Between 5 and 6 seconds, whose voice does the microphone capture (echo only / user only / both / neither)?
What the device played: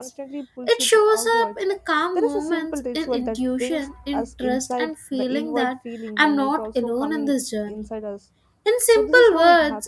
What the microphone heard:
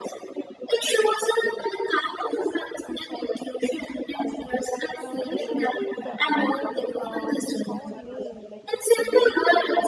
both